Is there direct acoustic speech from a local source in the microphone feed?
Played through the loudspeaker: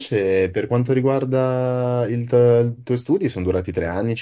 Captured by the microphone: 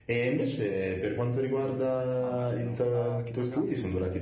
Yes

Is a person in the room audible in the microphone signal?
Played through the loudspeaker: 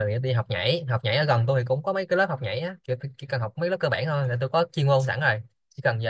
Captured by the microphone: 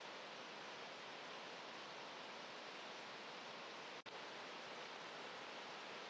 No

